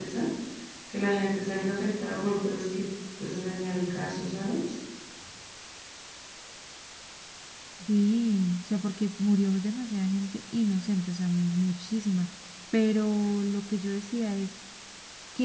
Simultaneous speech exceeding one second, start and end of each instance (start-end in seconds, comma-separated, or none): none